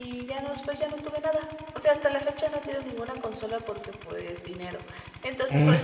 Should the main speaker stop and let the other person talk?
No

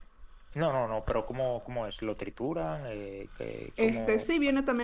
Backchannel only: No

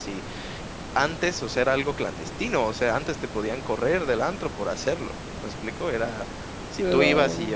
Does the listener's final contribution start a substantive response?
No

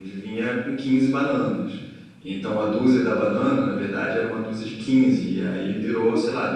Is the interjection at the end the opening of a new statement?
No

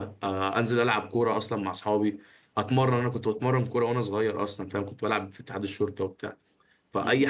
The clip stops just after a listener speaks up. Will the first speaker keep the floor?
Yes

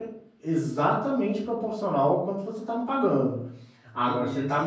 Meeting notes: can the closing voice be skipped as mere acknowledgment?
Yes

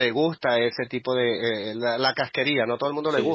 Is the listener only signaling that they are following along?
Yes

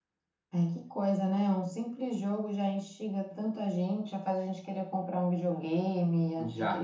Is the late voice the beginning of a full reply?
Yes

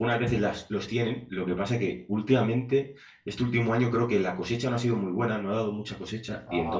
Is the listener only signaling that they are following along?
Yes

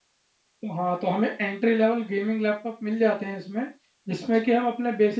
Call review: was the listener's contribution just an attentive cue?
Yes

